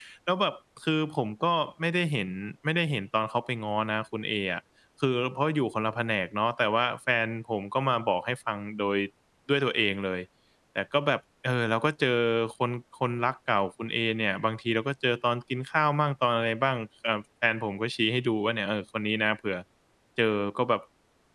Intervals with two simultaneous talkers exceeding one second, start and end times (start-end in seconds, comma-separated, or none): none